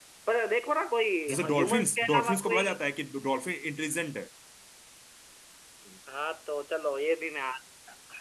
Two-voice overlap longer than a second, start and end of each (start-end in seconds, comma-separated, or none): 1.4-2.6